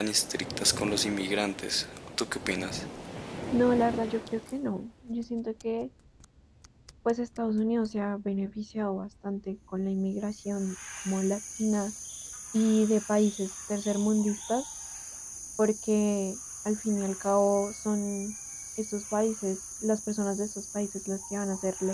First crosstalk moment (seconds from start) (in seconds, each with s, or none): none